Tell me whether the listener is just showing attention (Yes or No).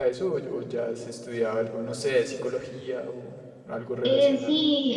No